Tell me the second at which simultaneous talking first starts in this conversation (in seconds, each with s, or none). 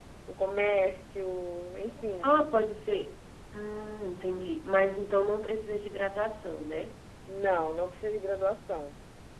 none